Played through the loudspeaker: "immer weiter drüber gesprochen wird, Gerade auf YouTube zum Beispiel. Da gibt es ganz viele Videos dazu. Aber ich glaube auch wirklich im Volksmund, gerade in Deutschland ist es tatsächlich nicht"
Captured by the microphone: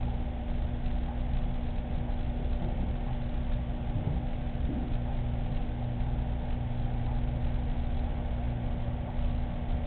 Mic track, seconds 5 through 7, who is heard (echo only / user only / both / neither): neither